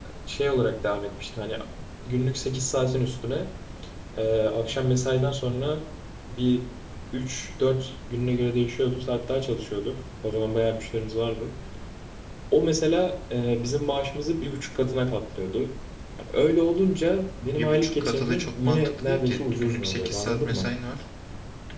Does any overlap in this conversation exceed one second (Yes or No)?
Yes